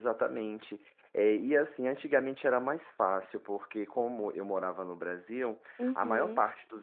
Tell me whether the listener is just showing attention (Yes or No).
Yes